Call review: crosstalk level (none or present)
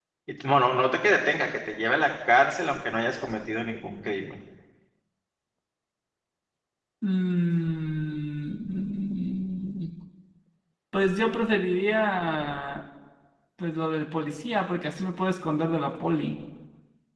none